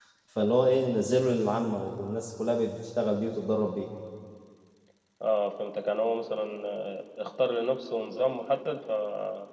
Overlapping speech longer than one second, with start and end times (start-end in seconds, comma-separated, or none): none